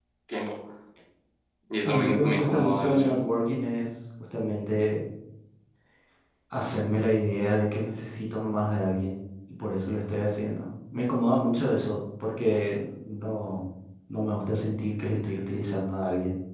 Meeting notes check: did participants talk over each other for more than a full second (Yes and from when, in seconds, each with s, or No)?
Yes, from 1.8 s